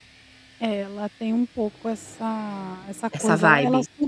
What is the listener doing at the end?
listening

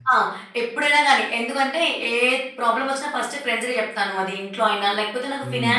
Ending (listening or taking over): listening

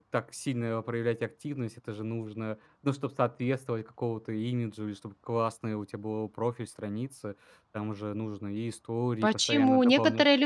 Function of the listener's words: taking over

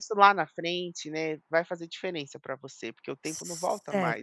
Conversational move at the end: taking over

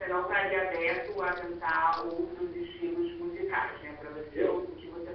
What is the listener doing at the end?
listening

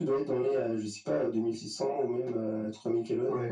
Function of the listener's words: taking over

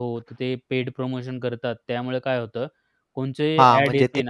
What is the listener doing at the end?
taking over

